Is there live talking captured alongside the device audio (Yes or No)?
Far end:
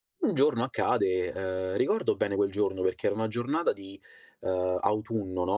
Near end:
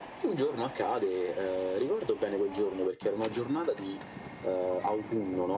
No